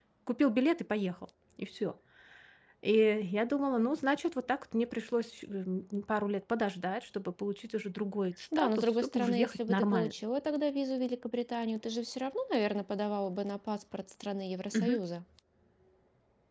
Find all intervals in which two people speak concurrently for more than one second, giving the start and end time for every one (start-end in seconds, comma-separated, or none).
8.6-10.1